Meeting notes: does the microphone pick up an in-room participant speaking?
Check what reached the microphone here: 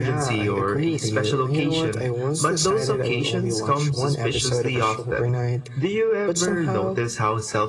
No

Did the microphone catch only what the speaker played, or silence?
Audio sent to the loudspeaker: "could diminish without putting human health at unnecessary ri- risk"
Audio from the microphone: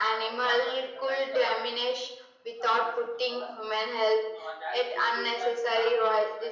Yes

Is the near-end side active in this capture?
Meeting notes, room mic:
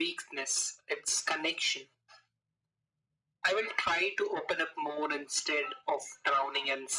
No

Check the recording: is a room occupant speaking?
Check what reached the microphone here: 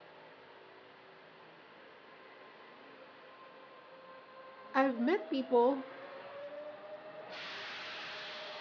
Yes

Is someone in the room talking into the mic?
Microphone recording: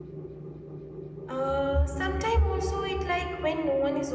Yes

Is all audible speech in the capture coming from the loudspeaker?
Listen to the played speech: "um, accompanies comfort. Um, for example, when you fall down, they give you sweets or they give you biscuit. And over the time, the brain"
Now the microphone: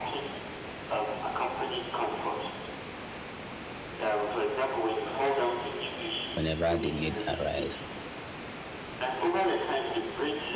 No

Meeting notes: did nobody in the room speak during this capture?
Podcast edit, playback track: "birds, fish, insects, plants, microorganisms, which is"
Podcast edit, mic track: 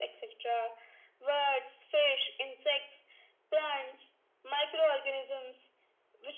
Yes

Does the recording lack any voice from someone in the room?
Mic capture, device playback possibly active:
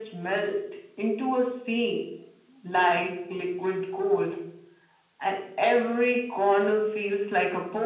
Yes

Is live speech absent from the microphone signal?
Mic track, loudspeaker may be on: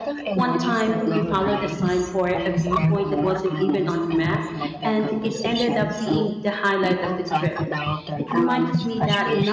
No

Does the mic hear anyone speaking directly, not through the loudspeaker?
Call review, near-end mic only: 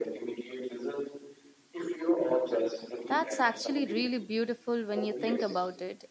Yes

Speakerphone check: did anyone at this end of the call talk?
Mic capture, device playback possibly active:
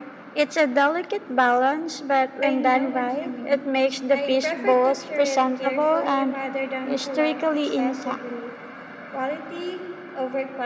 Yes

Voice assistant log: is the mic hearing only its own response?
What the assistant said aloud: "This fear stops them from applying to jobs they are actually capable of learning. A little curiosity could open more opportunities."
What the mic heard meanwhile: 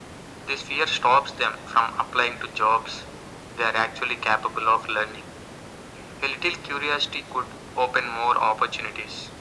Yes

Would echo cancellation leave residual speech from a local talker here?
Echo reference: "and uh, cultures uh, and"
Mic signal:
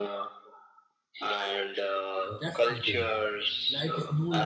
Yes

